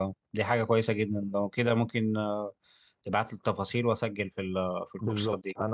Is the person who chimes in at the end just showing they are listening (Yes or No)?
No